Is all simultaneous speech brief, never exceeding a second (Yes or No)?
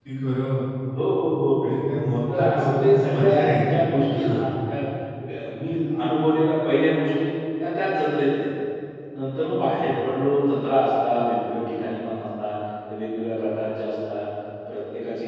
No